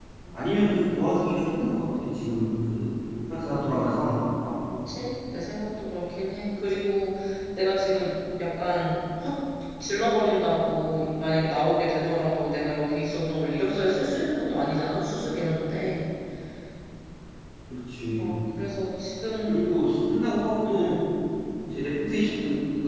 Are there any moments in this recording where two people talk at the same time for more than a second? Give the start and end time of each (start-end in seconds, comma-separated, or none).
none